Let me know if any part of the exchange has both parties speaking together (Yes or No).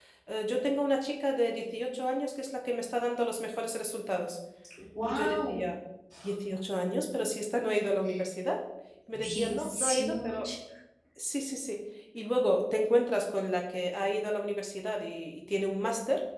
Yes